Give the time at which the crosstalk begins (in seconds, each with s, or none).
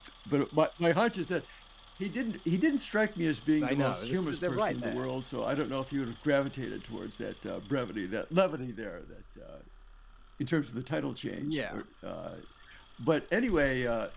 3.6 s